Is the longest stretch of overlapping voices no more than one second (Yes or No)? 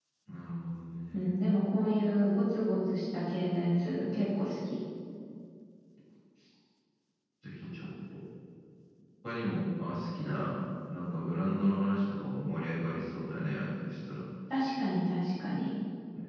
Yes